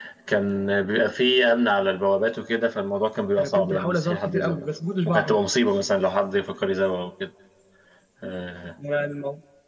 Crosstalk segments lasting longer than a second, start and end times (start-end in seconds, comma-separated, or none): 3.4-4.7